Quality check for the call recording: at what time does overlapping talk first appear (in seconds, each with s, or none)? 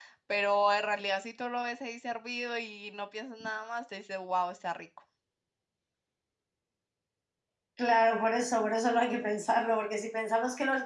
none